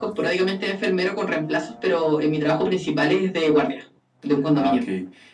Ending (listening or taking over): taking over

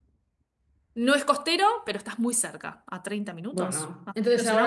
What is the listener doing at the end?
taking over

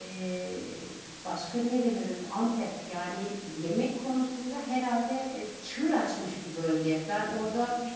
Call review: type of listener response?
listening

